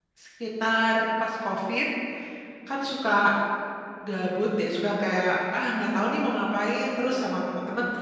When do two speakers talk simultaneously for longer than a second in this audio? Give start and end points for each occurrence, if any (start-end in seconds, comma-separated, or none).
none